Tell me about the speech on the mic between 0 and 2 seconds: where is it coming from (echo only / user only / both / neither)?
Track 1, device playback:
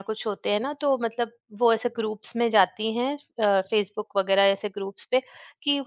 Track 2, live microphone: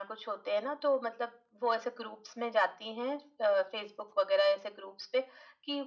echo only